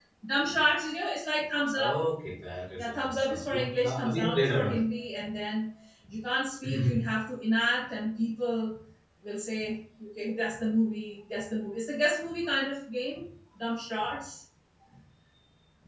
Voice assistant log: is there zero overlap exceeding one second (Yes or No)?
No